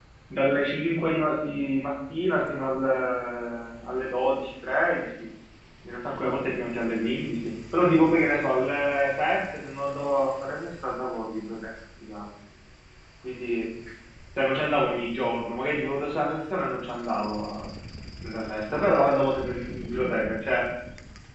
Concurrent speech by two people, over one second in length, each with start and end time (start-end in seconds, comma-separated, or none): none